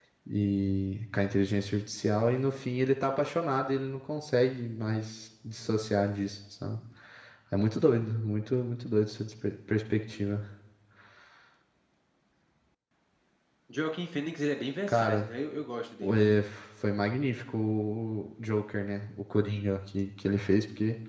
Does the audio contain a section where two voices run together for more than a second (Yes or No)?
No